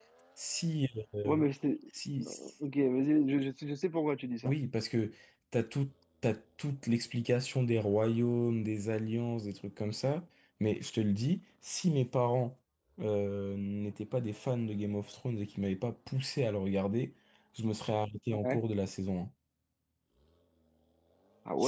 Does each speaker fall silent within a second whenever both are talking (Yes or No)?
Yes